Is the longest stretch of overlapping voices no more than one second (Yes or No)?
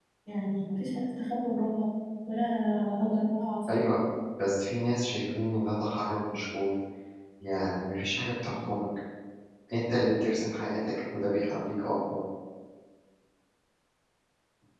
Yes